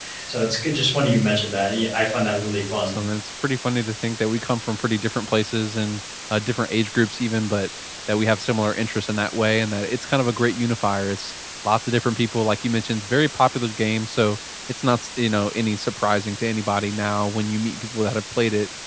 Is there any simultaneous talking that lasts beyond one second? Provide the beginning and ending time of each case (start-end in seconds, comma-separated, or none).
none